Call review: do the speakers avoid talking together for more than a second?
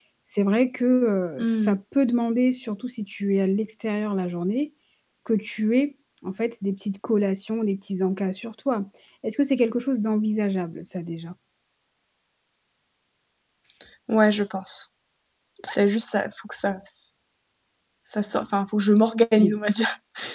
Yes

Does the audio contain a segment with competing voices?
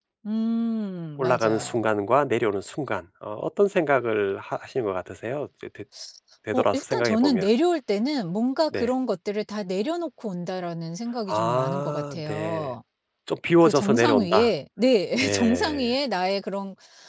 Yes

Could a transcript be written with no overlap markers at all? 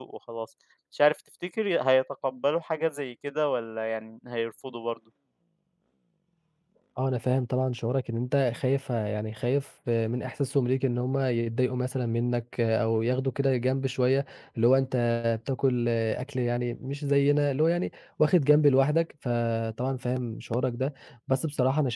Yes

